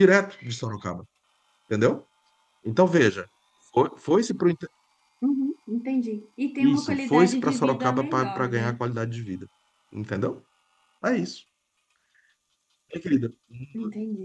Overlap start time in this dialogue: 7 s

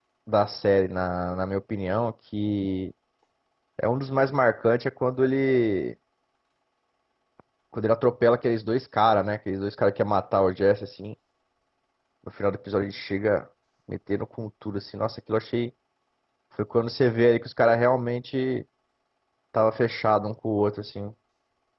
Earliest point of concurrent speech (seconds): none

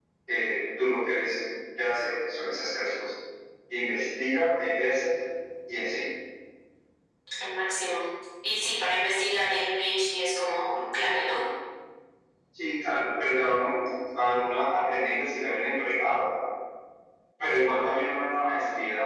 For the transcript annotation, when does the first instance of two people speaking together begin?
none

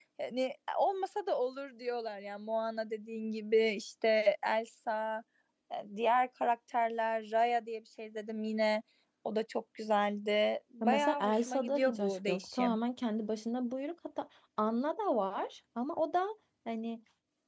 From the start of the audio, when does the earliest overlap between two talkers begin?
11 s

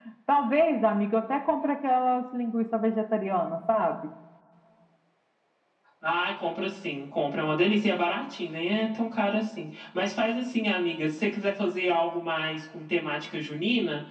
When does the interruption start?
none

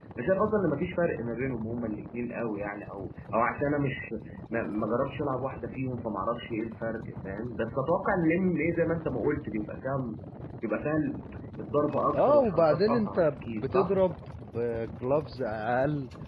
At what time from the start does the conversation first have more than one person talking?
12 s

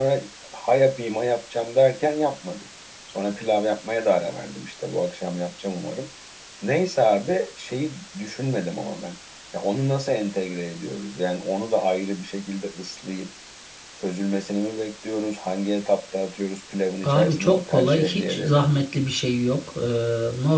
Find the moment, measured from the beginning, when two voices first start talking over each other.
17 s

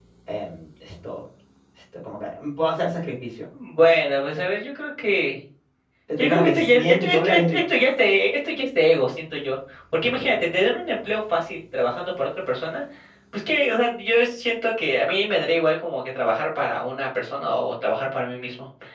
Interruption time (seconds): 6 s

